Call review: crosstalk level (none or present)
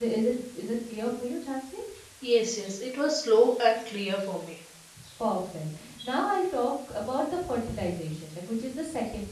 none